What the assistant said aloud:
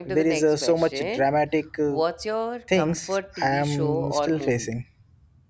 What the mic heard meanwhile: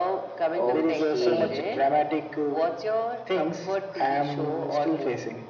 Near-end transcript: Okay.

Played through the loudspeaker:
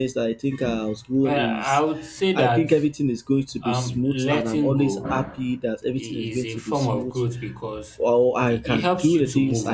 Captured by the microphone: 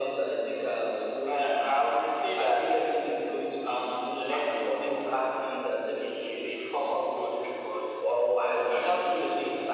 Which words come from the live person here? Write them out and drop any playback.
none

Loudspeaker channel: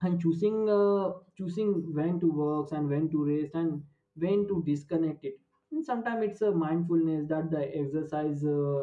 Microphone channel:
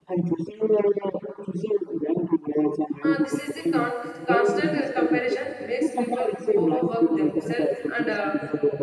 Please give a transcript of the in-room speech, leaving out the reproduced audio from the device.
uh, this is the con- constant uh, comparison makes people overwork themselves and uh,

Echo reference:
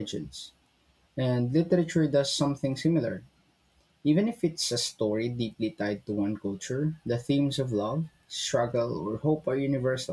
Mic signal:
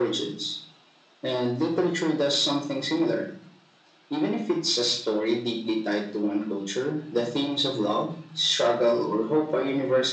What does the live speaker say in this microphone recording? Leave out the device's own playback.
none

